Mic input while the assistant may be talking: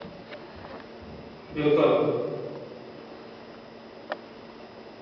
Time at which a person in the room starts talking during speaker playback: 1.5 s

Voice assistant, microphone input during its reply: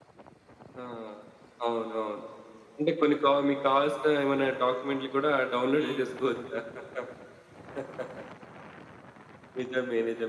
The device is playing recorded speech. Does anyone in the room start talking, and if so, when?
5.8 s

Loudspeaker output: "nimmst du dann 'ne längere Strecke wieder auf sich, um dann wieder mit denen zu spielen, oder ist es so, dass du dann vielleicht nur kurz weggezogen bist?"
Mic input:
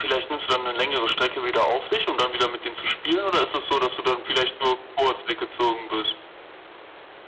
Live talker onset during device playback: none

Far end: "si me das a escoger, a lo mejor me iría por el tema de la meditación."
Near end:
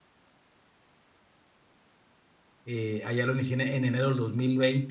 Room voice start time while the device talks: 2.6 s

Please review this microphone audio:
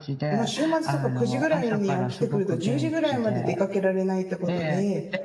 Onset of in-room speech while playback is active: 0.3 s

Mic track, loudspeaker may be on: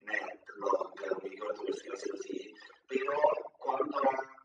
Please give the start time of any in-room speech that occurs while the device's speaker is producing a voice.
none

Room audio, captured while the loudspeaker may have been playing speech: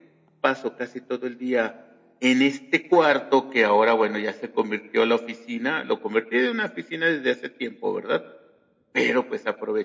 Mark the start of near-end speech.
none

